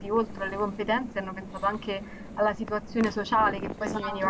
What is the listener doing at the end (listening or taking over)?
taking over